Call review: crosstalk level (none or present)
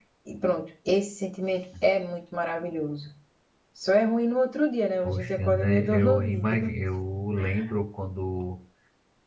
present